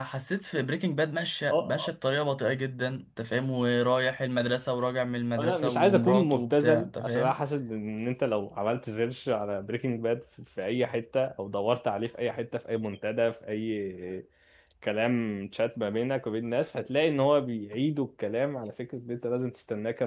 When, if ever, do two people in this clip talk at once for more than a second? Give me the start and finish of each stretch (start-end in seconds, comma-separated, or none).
5.4-7.3